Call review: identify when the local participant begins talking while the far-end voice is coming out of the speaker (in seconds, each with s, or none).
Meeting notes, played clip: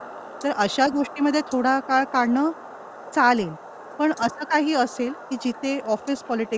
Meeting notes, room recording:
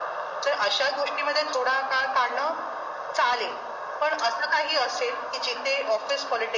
none